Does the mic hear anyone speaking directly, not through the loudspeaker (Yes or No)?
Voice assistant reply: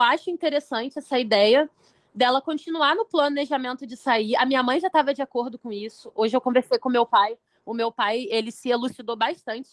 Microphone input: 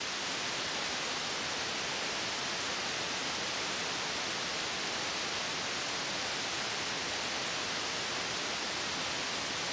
No